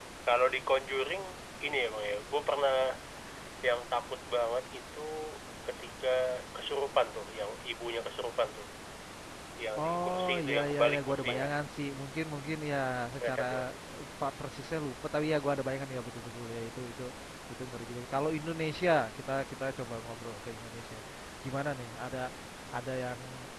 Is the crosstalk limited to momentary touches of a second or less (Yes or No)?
No